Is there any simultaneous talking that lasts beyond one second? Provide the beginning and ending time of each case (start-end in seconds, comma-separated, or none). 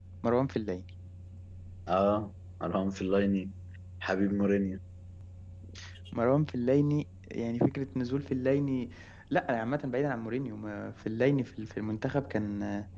none